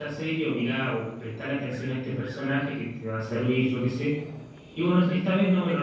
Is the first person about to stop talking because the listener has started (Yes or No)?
No